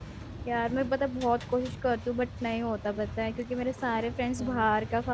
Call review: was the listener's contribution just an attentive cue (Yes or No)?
Yes